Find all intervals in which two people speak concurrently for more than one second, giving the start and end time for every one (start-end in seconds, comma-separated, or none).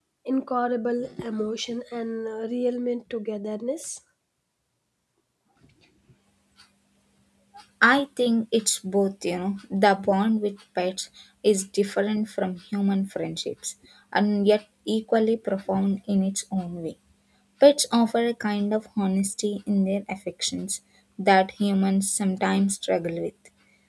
none